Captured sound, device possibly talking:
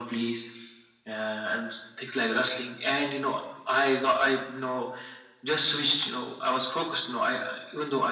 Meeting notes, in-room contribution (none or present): none